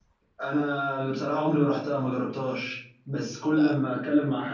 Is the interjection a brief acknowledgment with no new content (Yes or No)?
Yes